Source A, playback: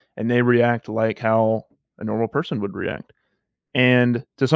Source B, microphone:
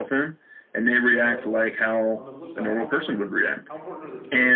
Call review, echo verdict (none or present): present